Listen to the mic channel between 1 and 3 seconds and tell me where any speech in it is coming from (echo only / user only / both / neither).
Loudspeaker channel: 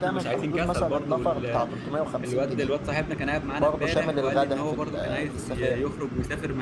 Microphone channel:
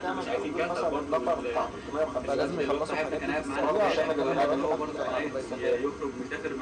both